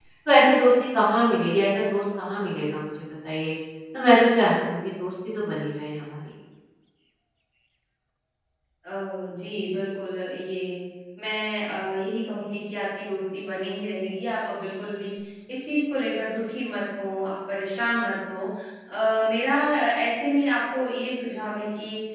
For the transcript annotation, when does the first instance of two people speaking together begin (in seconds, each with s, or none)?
none